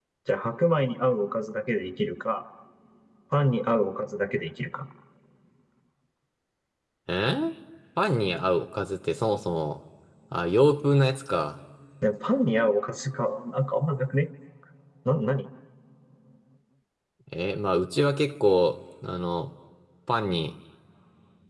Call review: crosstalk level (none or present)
none